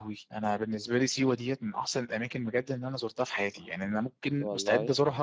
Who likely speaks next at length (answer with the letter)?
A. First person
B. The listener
A